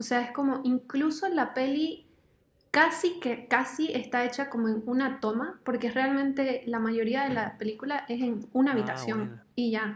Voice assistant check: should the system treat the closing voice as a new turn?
No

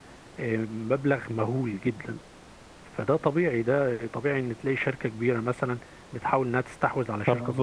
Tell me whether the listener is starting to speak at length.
Yes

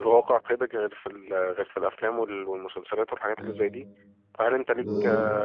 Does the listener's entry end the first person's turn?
No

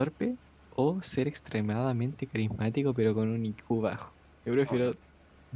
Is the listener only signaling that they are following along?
No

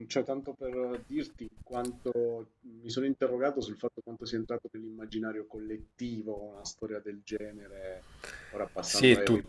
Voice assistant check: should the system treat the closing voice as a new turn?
Yes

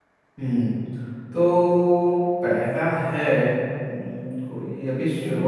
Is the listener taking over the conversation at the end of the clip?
No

